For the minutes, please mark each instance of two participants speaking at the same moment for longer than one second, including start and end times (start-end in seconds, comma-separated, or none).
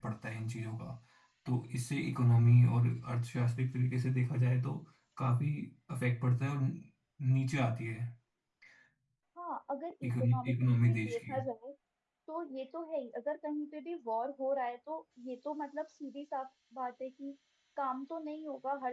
10.1-11.4